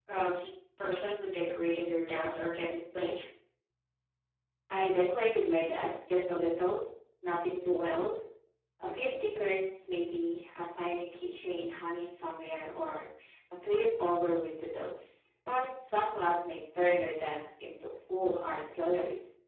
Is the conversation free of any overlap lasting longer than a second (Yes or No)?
Yes